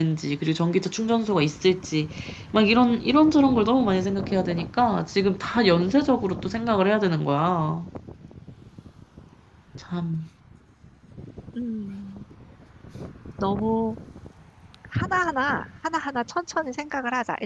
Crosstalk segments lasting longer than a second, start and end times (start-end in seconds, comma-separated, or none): none